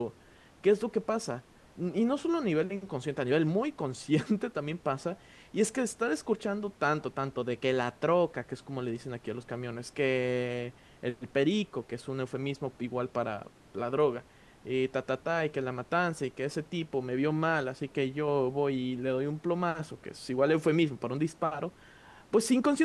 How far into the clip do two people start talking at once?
none

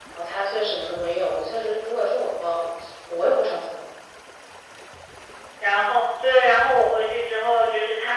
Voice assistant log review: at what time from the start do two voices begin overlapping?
none

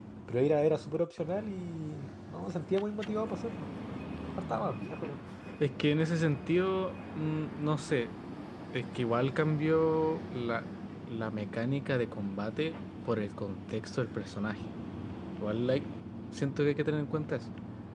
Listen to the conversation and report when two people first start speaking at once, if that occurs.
none

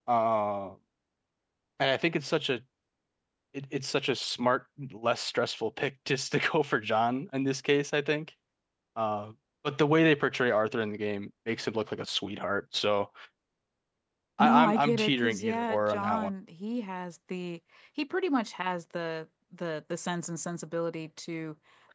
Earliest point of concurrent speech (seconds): 14.4 s

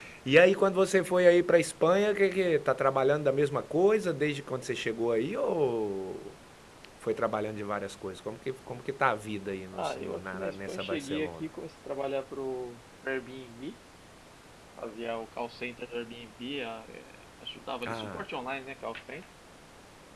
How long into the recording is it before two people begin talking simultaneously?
9.7 s

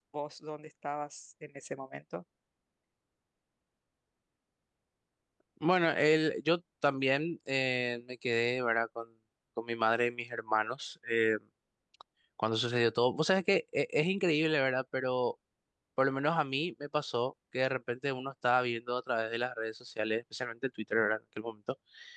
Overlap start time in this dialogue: none

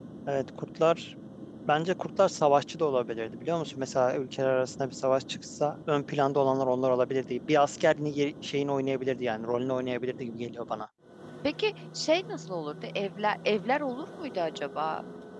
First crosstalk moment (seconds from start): none

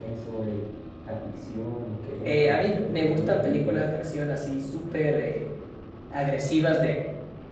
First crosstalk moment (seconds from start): 2.2 s

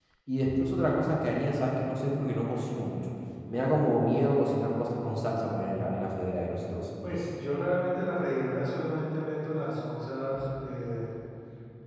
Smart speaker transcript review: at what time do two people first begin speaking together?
none

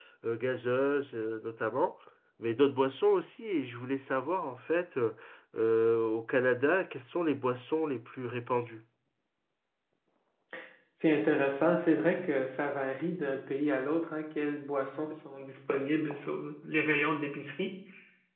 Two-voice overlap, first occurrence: none

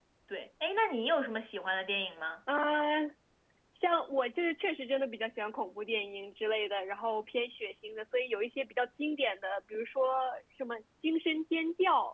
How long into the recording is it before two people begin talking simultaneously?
none

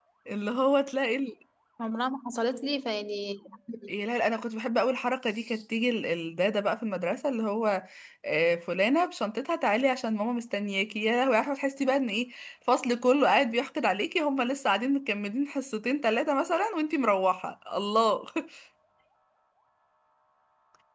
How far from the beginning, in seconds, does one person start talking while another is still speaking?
none

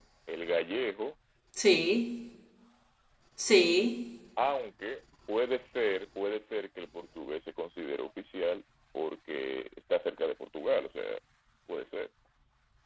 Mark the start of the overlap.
none

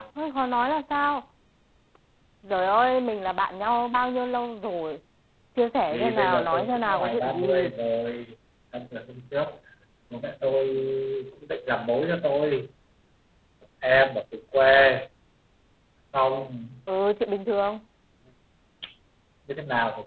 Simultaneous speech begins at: 5.9 s

